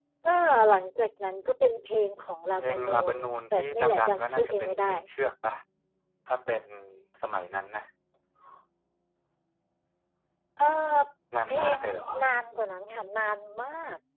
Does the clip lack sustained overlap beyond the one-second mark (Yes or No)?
No